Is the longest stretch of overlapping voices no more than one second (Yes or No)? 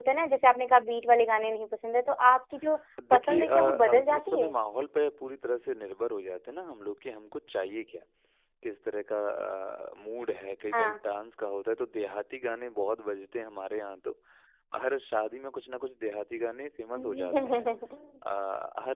No